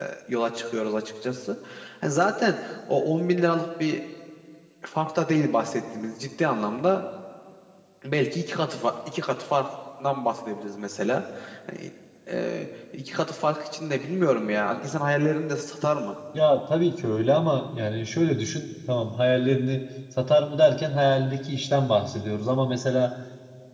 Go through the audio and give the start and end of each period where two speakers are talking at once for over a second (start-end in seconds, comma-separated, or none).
none